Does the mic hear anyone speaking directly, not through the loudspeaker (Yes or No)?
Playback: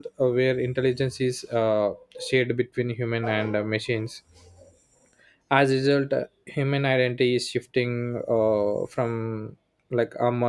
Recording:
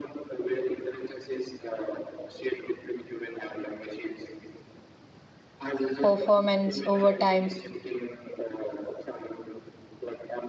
Yes